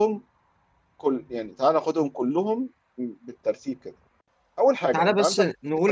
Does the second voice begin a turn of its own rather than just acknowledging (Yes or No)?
Yes